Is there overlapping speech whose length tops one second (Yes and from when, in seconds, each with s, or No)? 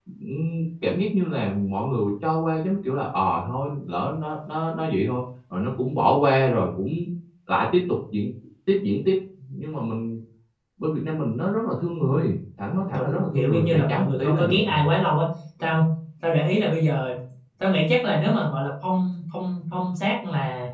Yes, from 12.9 s